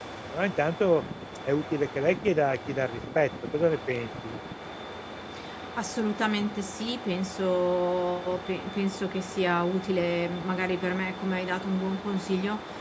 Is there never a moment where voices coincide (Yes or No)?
Yes